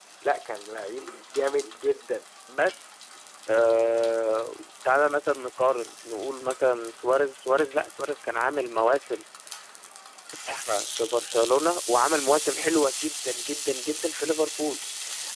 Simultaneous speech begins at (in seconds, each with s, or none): none